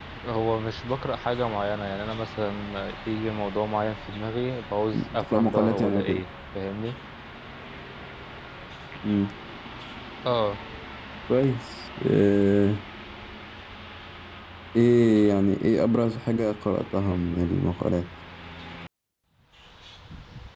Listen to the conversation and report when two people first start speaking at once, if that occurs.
4.9 s

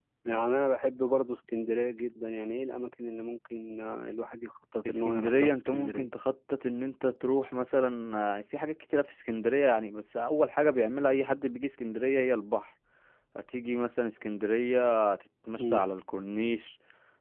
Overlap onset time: 4.8 s

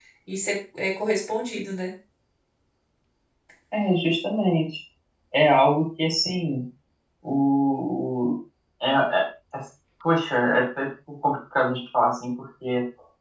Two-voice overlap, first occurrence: none

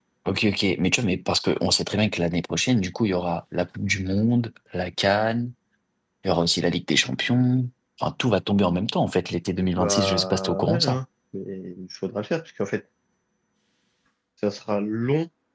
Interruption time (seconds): 9.8 s

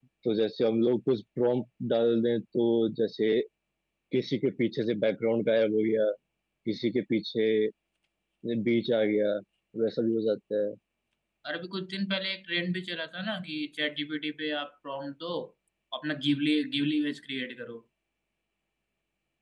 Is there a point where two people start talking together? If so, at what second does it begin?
none

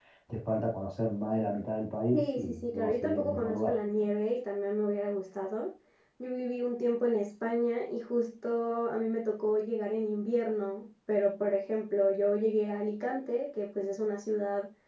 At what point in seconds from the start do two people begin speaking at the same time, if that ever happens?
2.1 s

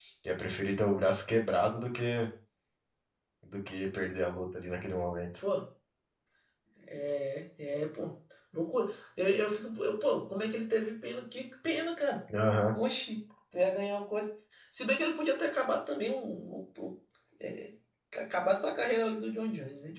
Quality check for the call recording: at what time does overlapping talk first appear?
none

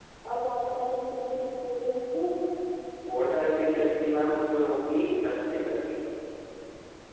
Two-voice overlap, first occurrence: none

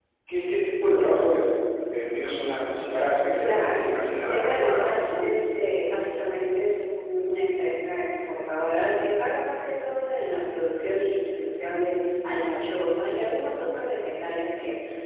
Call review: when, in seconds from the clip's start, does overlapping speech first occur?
3.4 s

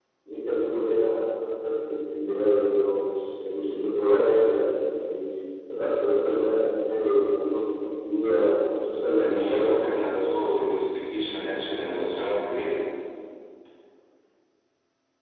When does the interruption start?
9.2 s

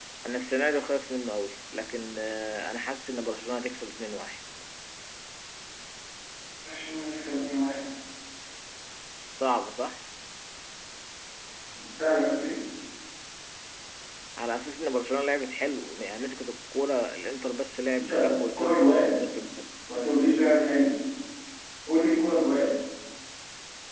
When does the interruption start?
18.0 s

